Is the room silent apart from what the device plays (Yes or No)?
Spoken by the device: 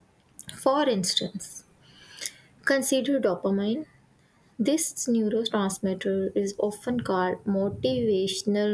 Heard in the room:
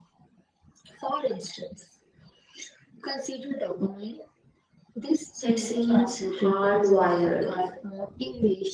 No